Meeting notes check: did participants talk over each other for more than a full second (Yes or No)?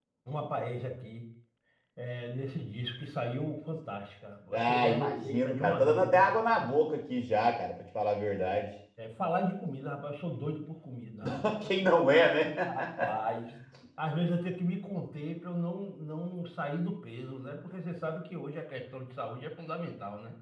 Yes